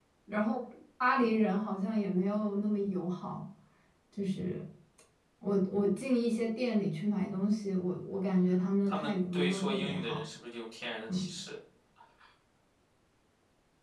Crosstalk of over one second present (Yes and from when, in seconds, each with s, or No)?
Yes, from 8.9 s